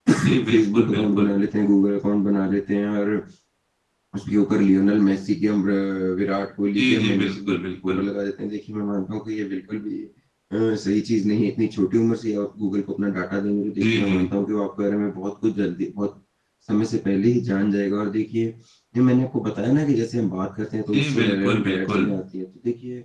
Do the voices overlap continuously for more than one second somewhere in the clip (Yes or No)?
Yes